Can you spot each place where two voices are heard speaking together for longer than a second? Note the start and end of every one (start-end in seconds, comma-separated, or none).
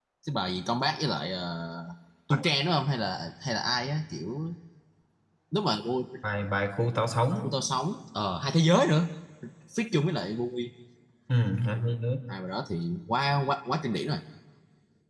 none